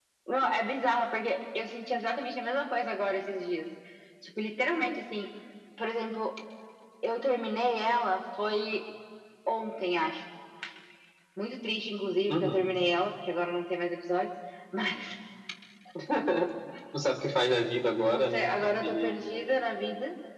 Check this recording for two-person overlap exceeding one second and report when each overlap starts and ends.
18.1-19.6

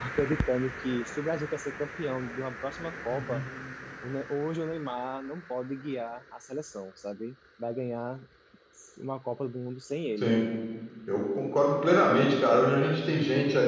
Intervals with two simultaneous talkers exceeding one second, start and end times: none

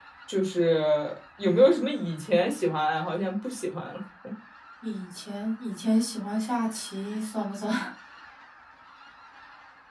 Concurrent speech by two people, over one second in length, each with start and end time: none

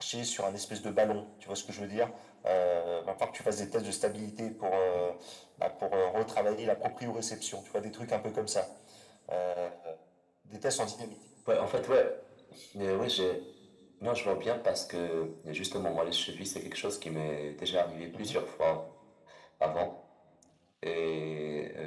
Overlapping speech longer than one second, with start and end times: none

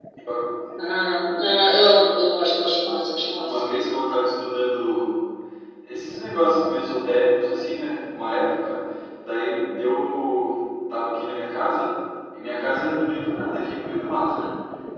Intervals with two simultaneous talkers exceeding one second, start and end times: none

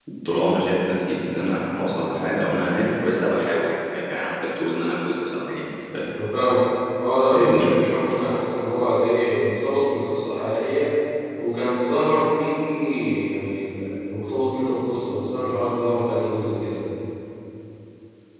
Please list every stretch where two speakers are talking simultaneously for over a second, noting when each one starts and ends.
none

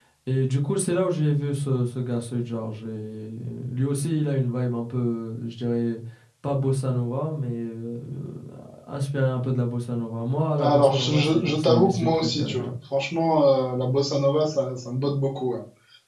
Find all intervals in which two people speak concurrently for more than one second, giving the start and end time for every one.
10.6-12.7

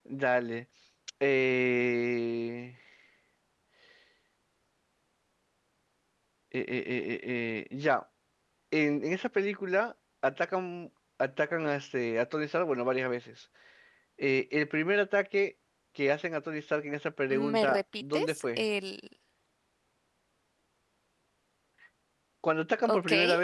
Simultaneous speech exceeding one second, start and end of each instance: 17.3-18.6

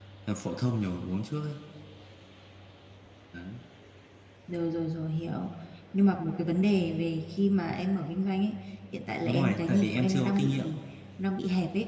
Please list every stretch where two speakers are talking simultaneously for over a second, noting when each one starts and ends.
9.2-10.6

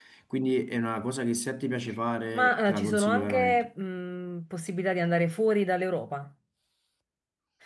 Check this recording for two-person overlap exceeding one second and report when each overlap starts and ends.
2.3-3.7

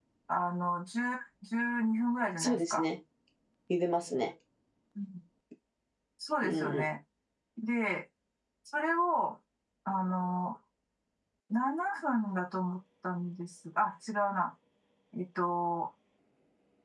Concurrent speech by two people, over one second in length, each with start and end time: none

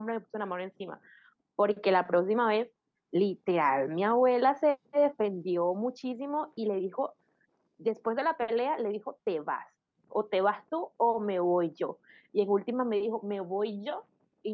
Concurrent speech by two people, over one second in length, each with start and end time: none

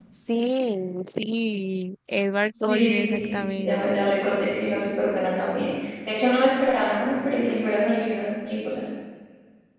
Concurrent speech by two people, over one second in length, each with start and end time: 2.6-4.2

